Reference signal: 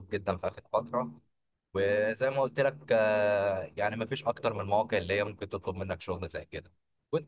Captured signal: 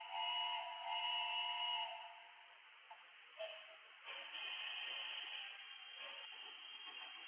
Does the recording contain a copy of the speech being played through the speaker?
No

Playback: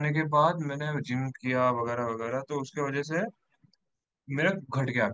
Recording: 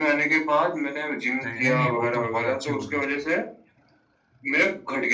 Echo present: Yes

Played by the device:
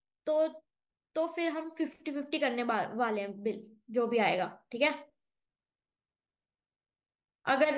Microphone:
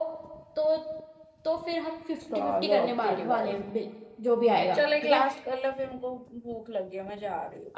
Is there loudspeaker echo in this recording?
Yes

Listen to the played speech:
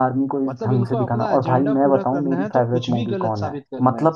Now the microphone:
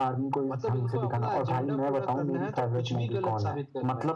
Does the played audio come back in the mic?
Yes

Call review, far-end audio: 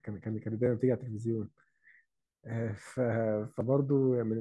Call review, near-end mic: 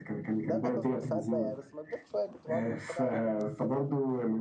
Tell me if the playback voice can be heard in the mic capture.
Yes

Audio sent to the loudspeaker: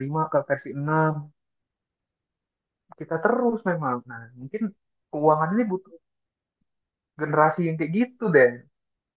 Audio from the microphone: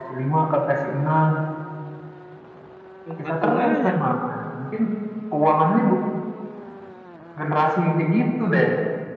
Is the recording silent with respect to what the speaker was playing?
No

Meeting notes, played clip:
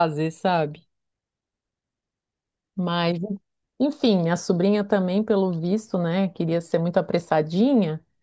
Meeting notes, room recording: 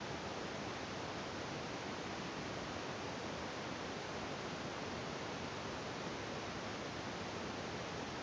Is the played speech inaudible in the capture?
Yes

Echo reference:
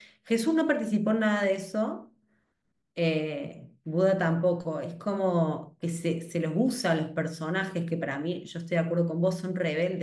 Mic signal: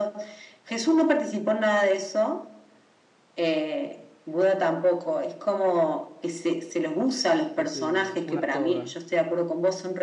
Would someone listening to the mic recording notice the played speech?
Yes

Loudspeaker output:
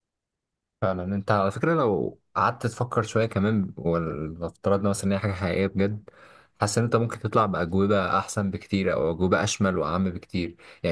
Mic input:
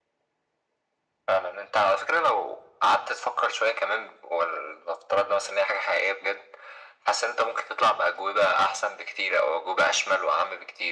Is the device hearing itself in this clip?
Yes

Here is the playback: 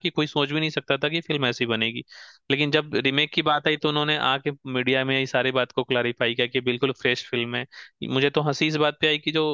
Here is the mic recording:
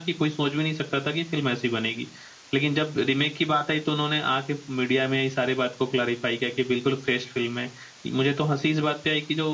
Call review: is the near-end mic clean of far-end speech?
No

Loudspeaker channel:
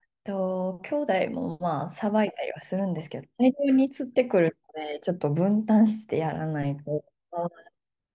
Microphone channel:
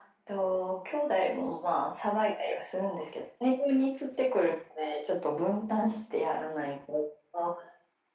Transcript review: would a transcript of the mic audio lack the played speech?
No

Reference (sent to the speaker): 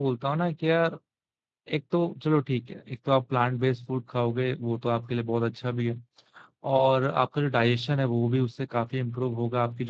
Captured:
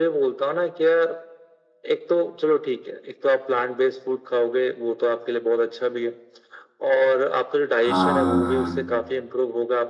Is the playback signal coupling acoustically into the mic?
Yes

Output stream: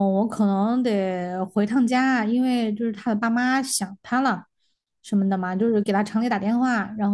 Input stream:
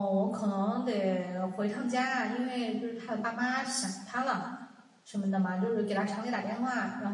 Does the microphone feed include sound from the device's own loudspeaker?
Yes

